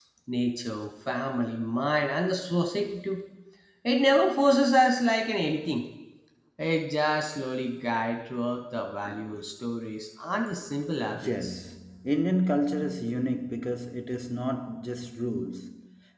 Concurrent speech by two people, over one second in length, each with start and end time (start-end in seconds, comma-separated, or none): none